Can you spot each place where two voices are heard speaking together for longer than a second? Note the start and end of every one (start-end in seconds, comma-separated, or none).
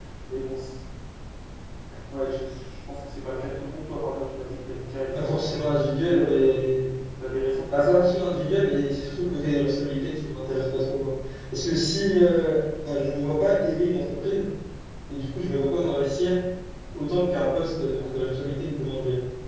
5.1-6.7